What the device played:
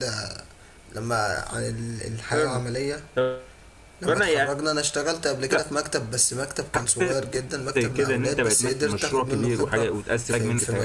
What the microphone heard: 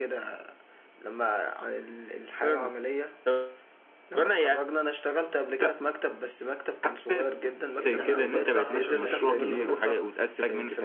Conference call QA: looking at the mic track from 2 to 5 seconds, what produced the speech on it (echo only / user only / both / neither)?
echo only